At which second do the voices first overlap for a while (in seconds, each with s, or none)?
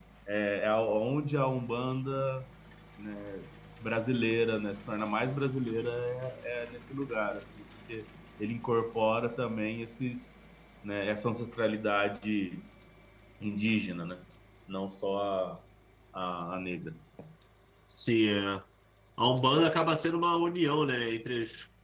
none